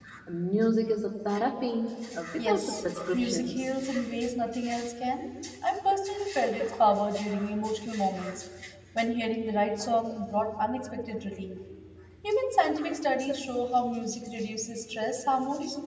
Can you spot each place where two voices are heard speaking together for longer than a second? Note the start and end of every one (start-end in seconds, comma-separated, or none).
2.4-3.7